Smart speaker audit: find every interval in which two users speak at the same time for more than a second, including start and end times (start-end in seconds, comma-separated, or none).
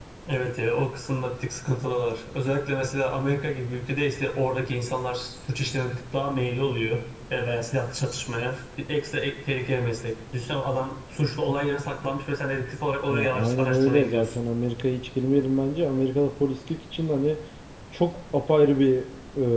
13.1-14.4